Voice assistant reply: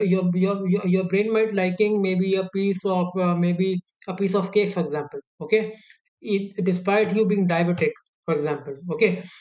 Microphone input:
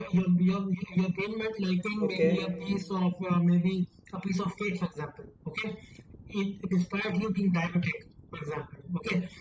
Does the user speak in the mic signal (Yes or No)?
Yes